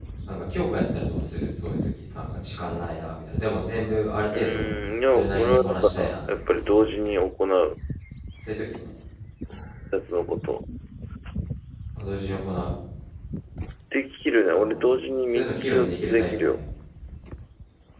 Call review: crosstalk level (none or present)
present